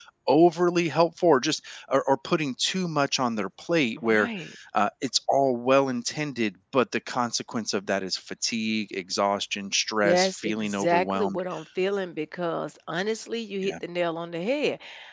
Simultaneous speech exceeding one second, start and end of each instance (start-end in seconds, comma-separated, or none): 10.0-11.4